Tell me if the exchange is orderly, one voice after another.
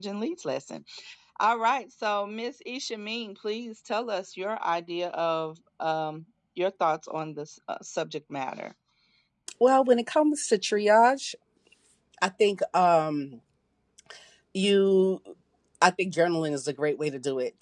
Yes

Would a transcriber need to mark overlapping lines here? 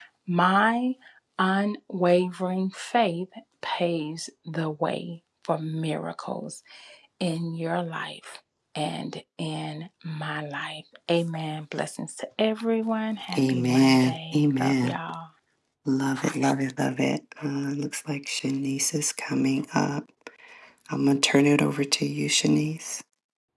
Yes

